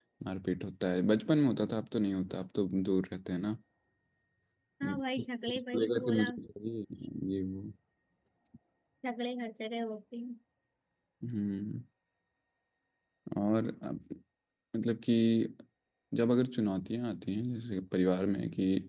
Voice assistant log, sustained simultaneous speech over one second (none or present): present